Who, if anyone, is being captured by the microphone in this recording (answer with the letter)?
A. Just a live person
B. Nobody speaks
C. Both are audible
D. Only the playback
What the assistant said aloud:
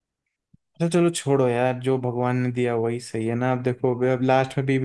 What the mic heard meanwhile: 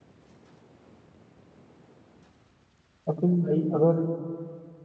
A